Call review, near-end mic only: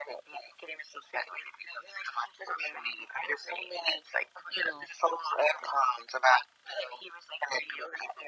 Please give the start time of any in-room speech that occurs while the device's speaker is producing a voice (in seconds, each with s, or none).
none